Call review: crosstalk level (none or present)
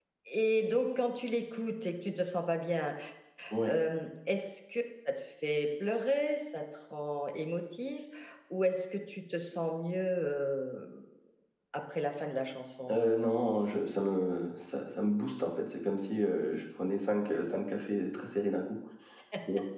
none